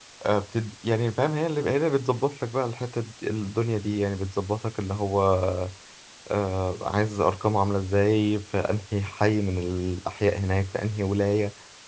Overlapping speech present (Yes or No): No